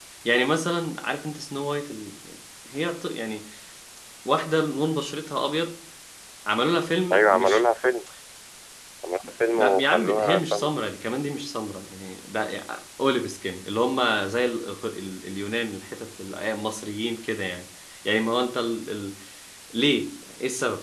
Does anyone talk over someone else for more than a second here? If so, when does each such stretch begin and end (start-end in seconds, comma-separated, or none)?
9.5-10.7